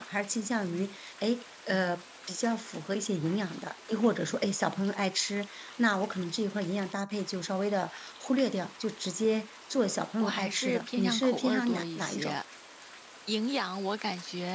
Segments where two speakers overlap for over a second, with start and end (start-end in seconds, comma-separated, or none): 10.2-12.4